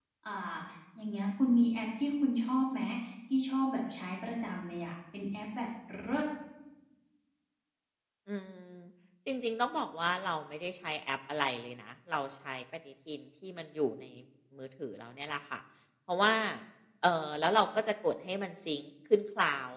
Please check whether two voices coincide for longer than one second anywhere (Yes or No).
No